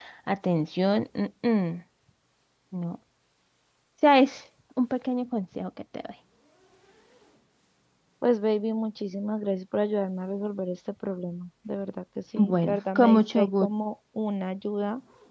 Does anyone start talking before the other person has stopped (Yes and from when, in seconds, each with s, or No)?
Yes, from 12.3 s